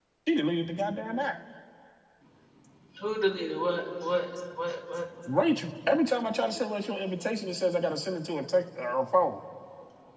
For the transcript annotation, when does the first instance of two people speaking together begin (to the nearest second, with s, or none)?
none